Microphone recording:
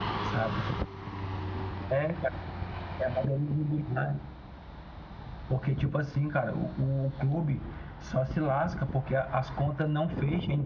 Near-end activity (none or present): none